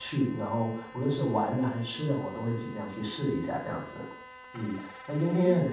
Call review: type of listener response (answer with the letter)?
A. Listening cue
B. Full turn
A